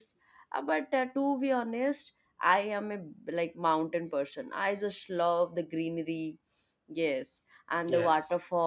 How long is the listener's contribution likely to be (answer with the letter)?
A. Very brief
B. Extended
A